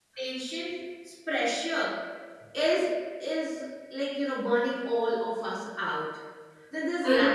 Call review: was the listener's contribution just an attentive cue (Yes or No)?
No